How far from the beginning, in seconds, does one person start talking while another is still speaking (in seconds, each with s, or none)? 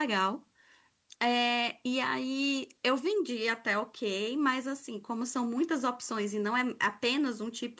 none